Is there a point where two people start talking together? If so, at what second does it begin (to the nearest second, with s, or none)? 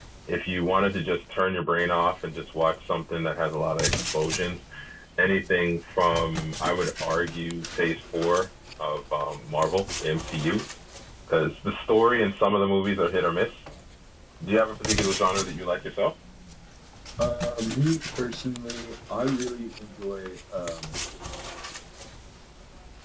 none